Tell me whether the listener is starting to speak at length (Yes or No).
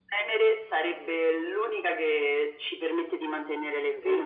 Yes